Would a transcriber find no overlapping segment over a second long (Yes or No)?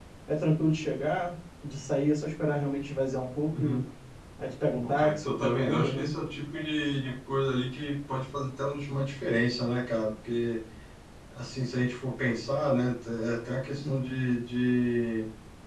No